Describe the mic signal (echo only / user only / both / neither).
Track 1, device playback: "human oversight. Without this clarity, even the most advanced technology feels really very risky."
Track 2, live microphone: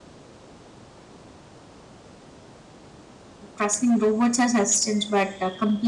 user only